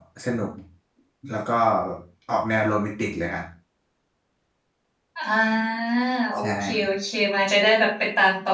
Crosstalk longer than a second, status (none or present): none